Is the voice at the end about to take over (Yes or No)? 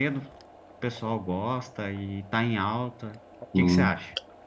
Yes